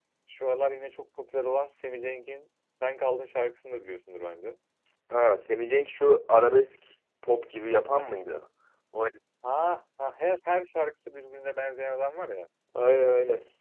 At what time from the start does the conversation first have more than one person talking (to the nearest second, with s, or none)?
none